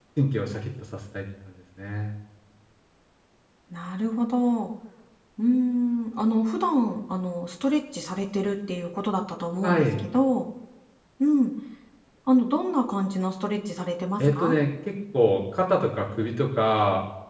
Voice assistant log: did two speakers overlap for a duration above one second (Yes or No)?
No